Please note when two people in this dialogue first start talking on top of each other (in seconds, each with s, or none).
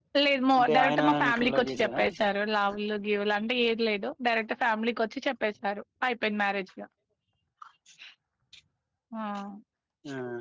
0.6 s